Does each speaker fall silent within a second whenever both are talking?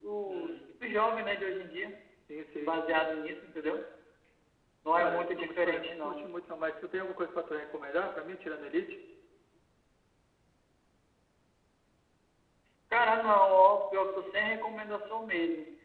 No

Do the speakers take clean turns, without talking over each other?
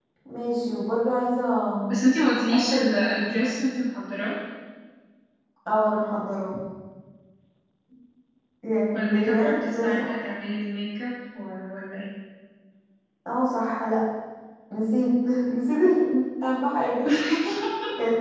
No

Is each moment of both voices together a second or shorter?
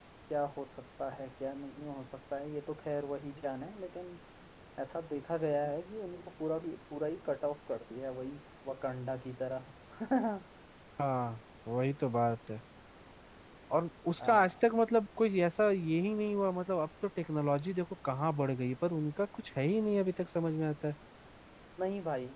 Yes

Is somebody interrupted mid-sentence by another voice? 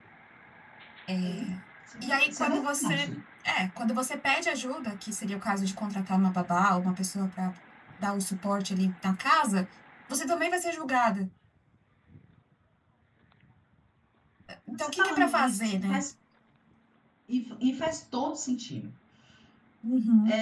Yes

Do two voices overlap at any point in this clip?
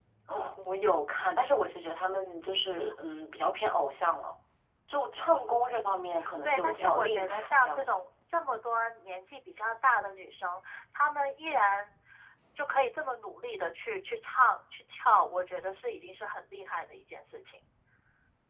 Yes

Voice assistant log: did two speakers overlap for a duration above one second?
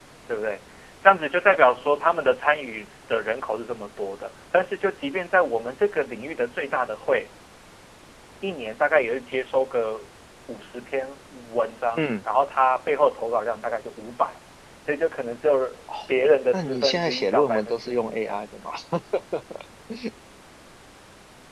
Yes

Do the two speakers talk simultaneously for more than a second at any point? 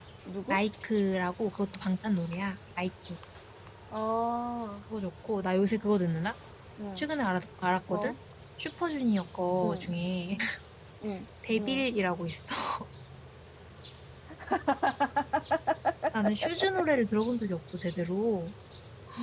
No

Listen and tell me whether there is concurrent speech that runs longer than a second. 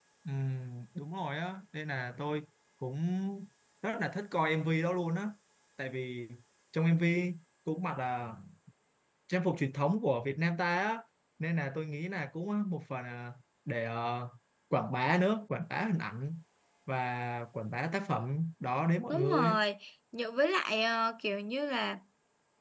No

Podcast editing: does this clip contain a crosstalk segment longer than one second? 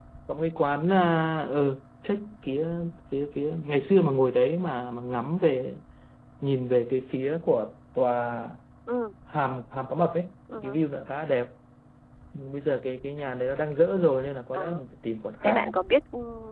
No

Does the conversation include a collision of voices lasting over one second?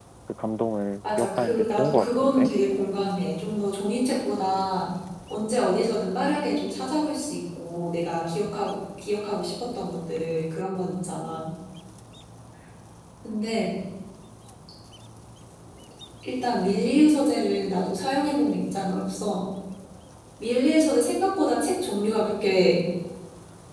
Yes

